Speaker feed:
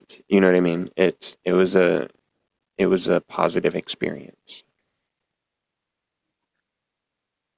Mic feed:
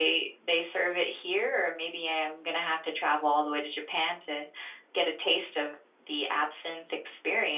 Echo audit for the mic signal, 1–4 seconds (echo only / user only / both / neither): user only